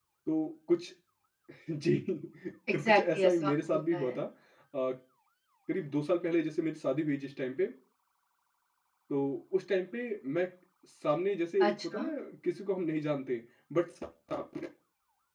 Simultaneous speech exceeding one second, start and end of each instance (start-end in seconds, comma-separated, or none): 2.7-4.2